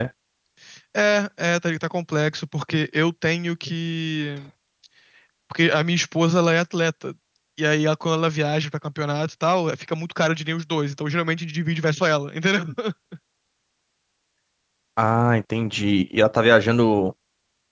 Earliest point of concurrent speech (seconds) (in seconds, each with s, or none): none